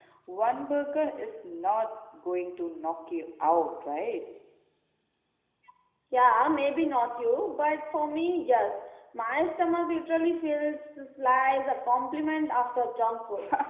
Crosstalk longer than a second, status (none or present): none